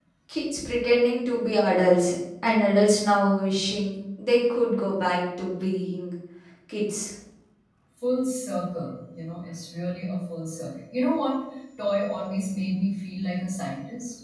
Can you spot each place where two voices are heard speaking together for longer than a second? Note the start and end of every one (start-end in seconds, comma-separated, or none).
none